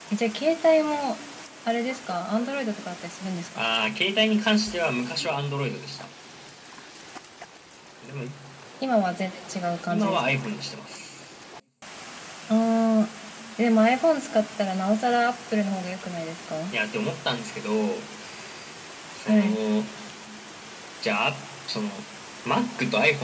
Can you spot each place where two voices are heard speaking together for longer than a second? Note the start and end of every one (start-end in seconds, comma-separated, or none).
none